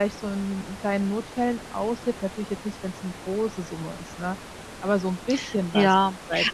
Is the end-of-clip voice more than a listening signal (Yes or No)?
Yes